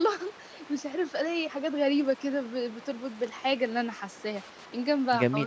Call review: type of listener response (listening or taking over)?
taking over